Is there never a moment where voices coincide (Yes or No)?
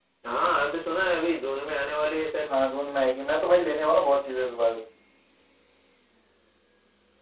Yes